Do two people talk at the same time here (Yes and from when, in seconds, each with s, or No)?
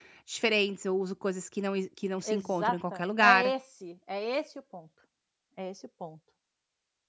Yes, from 2.2 s